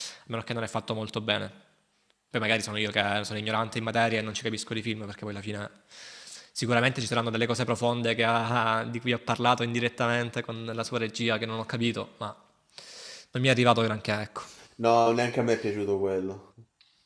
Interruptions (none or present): none